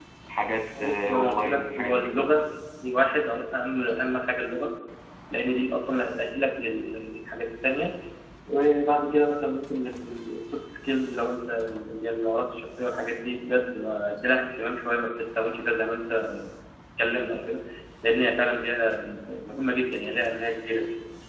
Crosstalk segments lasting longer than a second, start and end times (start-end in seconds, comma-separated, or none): 0.8-2.1